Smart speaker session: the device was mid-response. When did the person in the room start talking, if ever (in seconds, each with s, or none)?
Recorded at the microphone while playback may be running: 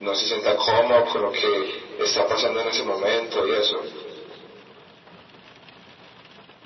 none